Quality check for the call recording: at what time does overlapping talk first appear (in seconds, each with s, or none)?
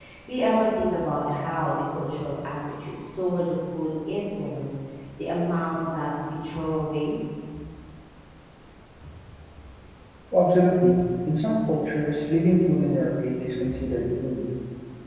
none